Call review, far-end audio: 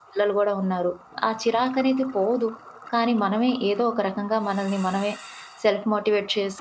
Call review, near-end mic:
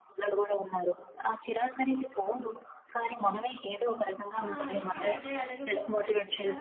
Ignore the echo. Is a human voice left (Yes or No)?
Yes